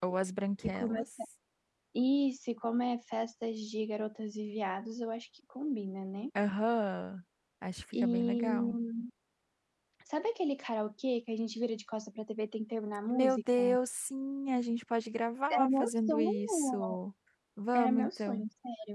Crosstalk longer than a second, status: present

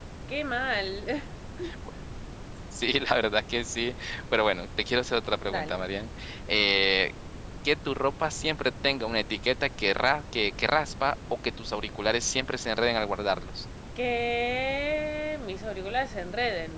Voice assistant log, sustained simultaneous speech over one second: none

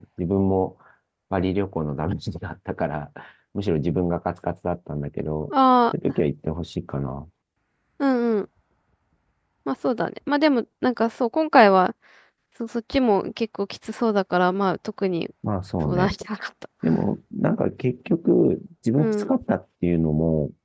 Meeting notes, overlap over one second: none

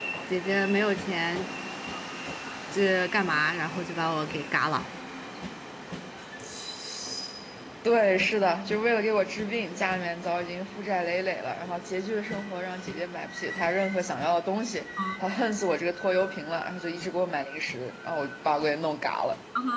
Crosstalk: none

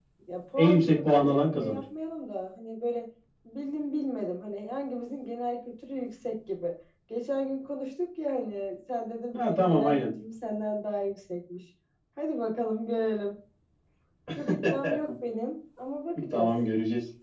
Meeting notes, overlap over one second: present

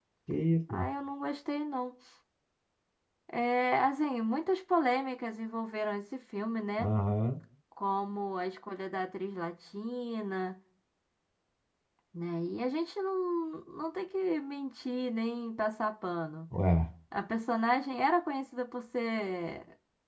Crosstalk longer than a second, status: none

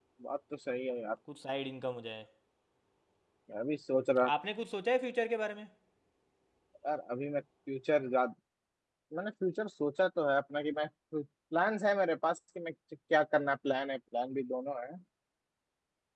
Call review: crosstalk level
none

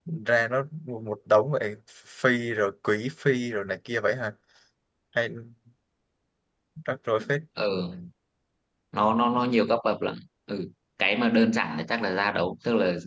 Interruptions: none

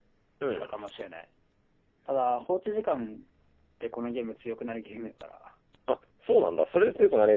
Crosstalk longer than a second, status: none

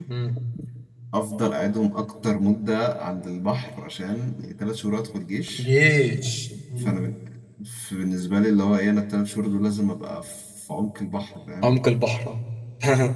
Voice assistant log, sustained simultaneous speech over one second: none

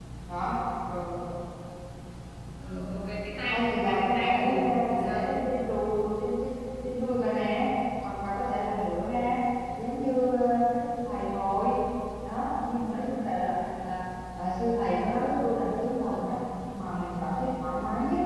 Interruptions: present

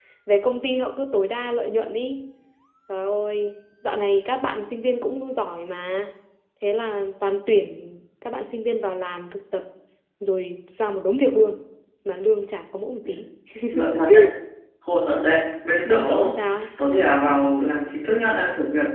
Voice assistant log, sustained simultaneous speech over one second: none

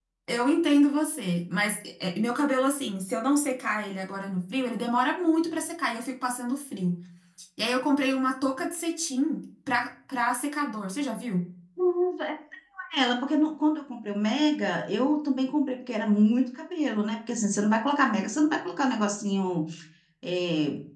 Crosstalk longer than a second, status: none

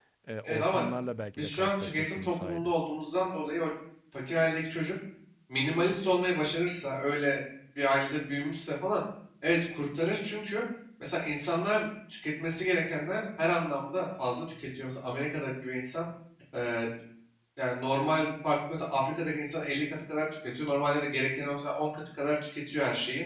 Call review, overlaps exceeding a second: present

